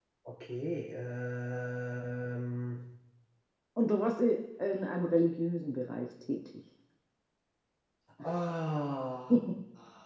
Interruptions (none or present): none